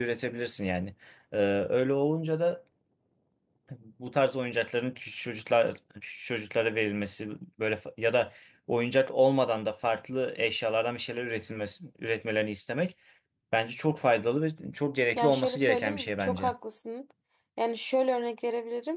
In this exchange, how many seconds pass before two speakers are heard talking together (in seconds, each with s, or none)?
15.2 s